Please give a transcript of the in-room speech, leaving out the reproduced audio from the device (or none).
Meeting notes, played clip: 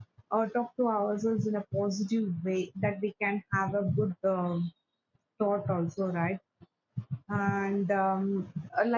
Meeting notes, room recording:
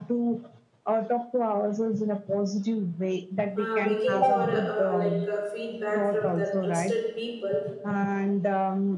uh, making for uh, uh, like uh, feedback from the trusted people